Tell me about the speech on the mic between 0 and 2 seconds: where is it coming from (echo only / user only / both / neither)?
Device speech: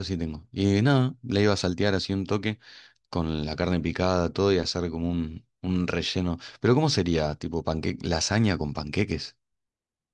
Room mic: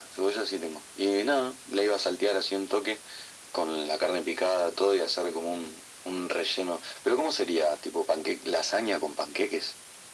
echo only